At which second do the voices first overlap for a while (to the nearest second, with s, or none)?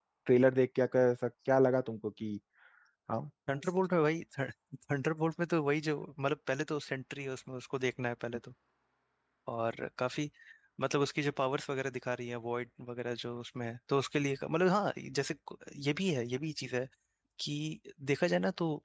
none